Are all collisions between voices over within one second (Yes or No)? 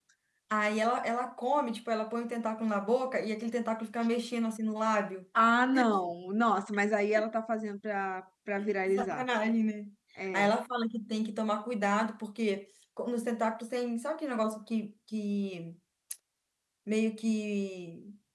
Yes